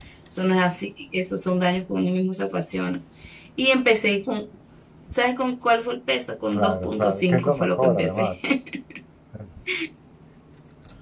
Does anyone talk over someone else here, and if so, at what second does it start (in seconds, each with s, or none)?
6.5 s